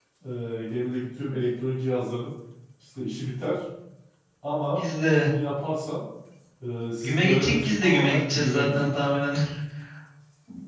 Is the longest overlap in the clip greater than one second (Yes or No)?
Yes